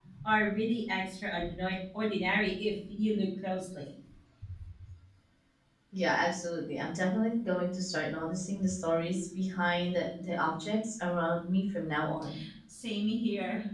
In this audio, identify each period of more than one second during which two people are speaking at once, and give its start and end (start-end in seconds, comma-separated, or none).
none